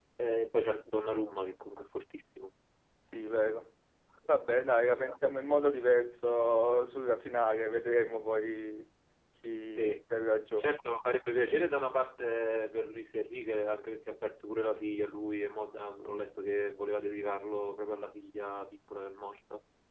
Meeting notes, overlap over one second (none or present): none